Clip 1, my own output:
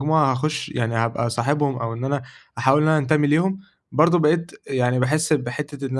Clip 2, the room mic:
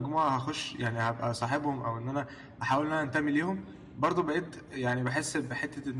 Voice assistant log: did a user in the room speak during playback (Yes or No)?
No